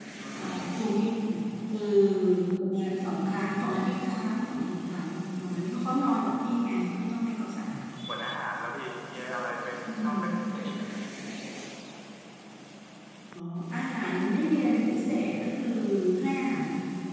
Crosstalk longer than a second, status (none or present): none